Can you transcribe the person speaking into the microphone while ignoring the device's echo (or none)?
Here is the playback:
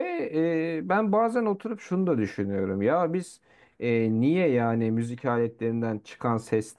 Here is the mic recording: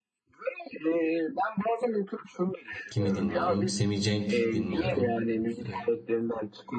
kimi dinliyorum? Semih Cenk dinliyorum. Ee,